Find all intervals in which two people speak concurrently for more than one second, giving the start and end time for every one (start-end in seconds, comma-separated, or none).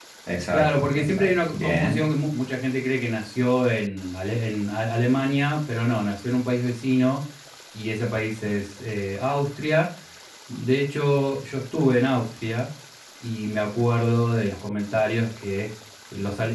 0.5-2.0